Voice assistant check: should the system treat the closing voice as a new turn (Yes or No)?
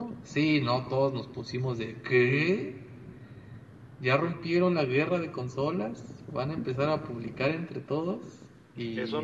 Yes